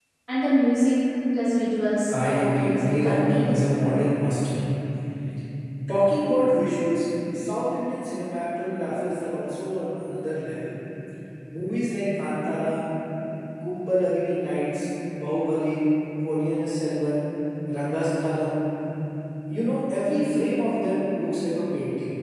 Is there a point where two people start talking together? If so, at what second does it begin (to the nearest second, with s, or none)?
2 s